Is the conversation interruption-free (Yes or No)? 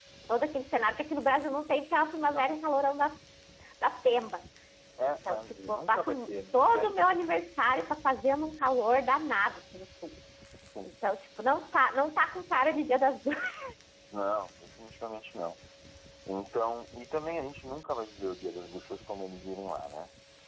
No